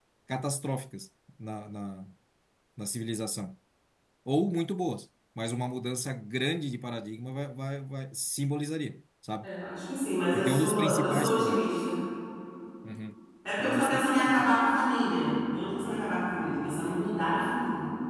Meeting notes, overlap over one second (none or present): present